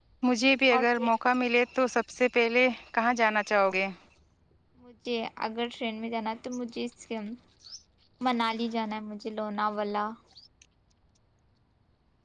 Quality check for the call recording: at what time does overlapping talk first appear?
none

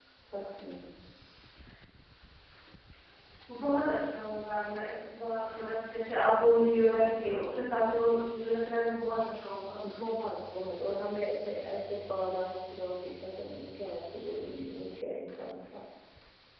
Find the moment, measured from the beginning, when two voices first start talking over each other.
none

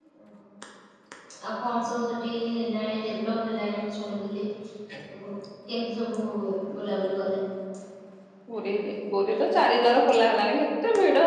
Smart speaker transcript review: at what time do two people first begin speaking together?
none

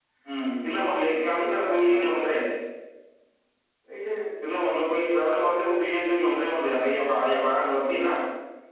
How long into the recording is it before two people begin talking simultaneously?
0.7 s

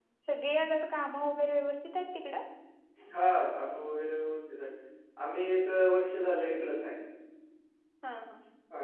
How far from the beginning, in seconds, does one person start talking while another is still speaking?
none

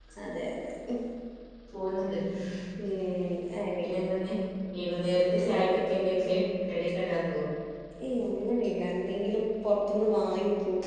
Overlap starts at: none

